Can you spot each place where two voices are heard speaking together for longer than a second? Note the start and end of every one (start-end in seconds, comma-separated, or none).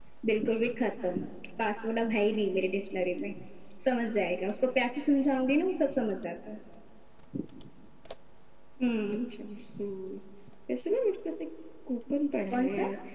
none